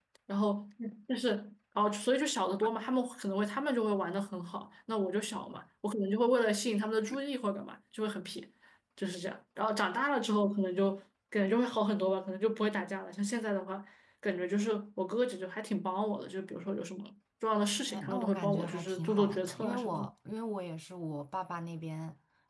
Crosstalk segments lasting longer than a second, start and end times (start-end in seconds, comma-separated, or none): 18.1-20.1